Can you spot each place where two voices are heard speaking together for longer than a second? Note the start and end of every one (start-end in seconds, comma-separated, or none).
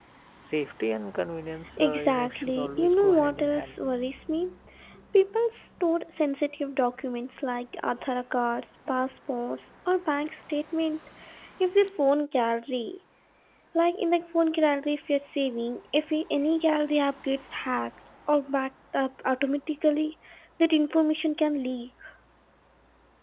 1.8-3.8